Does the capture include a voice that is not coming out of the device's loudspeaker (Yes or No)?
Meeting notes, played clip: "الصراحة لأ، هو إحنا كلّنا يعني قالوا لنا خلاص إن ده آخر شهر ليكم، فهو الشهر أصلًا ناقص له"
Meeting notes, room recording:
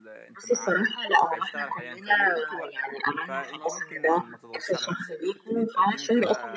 Yes